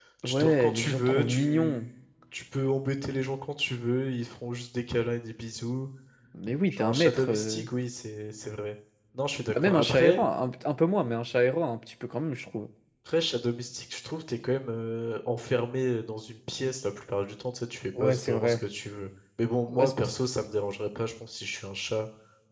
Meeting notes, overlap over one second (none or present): present